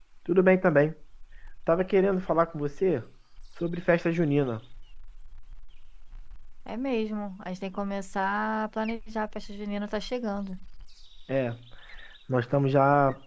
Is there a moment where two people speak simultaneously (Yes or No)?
No